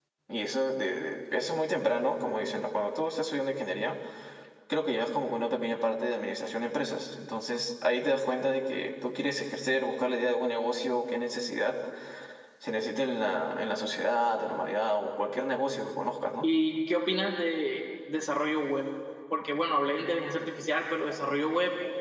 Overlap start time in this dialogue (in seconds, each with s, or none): none